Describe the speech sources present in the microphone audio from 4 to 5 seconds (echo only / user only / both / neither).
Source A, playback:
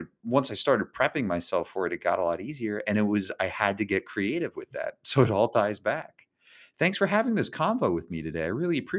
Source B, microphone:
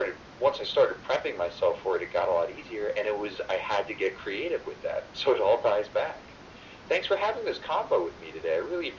echo only